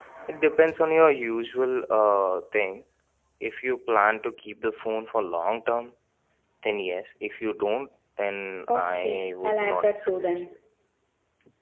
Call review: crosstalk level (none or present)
present